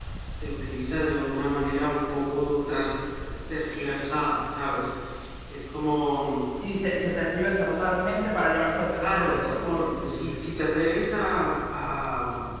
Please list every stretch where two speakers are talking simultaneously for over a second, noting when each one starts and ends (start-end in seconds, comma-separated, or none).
8.9-10.4